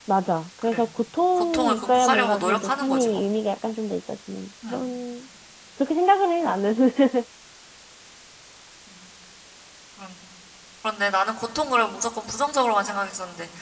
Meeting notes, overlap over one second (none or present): present